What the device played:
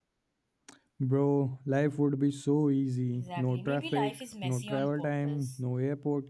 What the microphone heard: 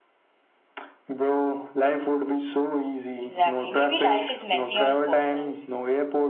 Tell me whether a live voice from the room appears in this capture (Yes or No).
No